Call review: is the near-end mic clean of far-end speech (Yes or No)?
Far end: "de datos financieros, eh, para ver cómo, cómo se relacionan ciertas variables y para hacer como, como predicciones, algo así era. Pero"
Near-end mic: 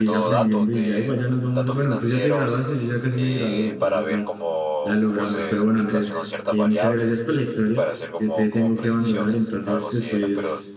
No